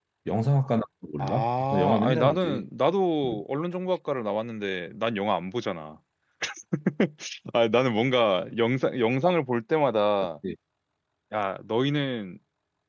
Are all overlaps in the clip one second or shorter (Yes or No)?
No